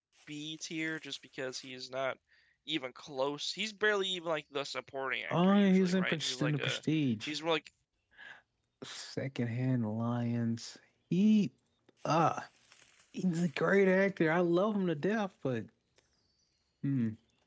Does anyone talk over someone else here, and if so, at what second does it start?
5 s

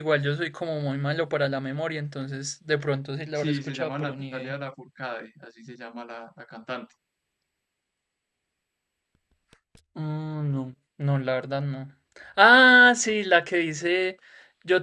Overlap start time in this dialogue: 3 s

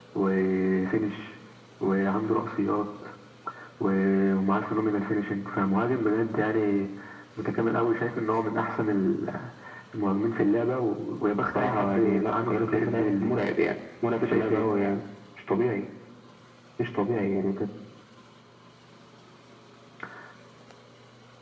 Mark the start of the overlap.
11 s

